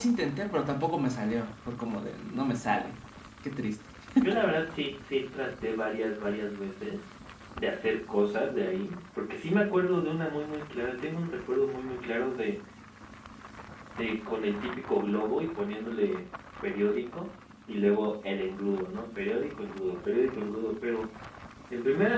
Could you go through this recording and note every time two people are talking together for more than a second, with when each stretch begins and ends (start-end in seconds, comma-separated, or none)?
none